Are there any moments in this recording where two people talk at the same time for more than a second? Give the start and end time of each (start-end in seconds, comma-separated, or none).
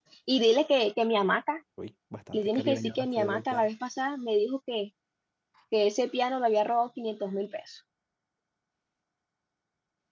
2.3-3.7